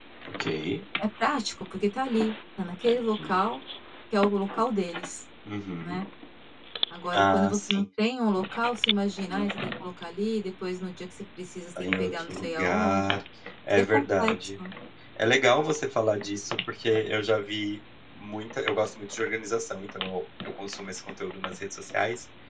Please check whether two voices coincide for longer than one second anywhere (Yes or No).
Yes